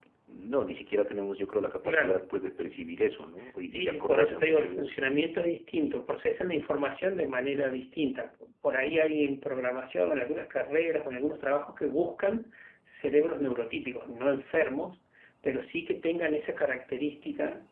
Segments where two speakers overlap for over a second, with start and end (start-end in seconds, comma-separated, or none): 3.7-5.0